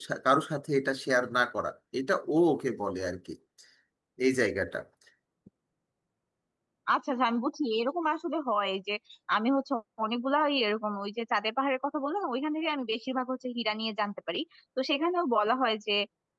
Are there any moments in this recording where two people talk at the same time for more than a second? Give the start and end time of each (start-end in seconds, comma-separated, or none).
none